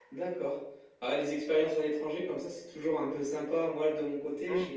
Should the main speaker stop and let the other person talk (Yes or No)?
No